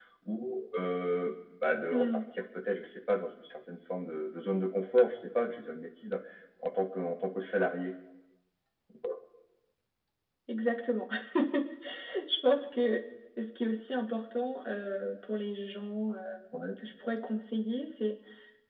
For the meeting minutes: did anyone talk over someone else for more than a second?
No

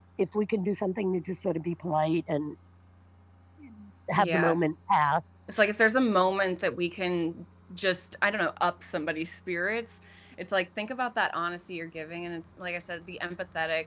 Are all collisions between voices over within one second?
Yes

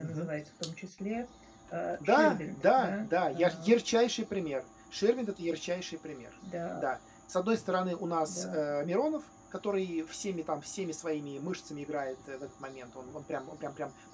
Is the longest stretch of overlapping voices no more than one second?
No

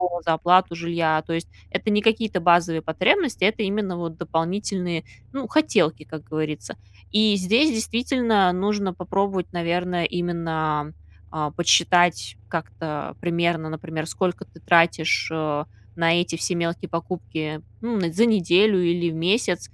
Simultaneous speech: No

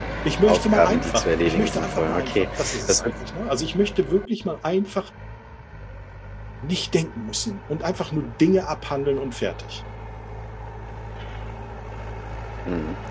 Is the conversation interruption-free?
No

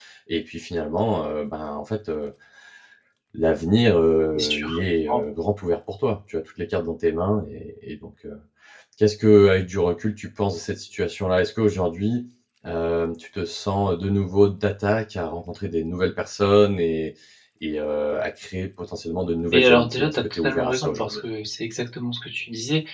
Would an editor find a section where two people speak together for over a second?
Yes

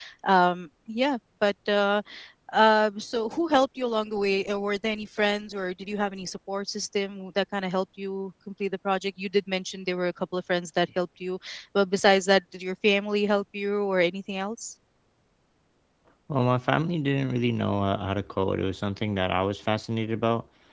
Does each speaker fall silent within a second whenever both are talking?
Yes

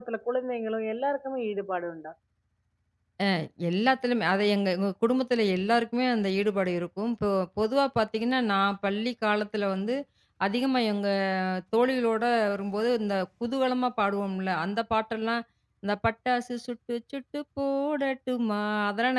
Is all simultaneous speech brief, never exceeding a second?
Yes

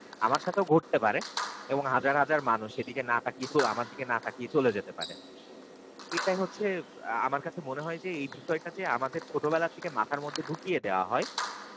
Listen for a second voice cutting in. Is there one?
No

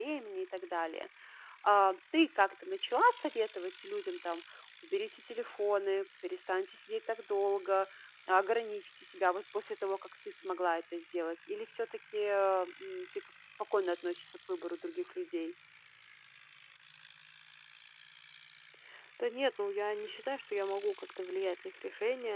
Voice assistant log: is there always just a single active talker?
Yes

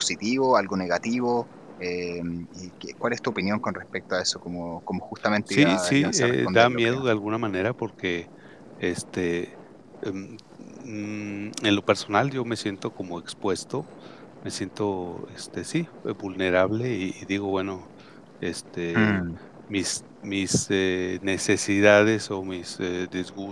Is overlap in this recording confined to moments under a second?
No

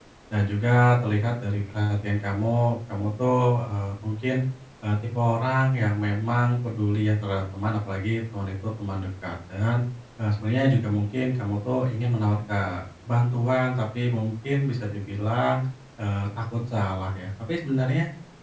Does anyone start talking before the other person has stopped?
No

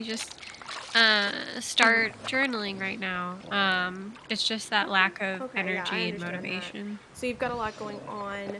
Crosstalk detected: Yes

